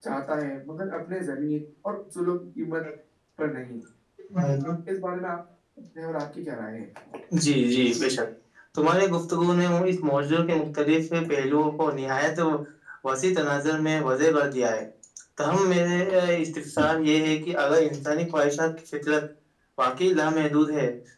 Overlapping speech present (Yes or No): No